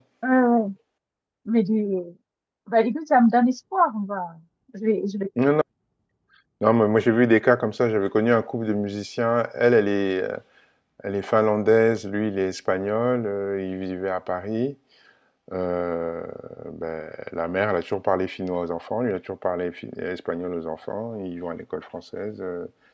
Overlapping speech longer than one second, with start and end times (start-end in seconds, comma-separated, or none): none